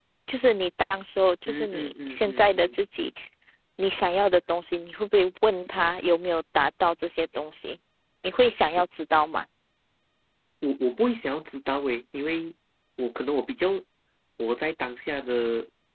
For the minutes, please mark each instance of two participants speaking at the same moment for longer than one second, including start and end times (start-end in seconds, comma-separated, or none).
1.5-2.8